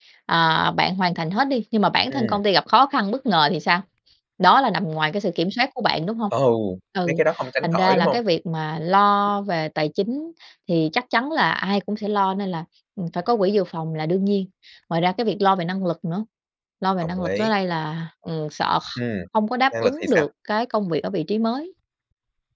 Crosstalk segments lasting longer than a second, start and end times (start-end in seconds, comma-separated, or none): none